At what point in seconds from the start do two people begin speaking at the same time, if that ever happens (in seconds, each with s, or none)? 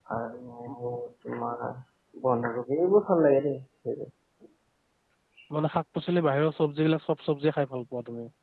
none